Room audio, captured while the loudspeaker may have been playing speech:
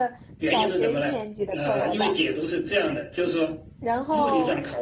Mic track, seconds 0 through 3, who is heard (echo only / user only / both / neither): both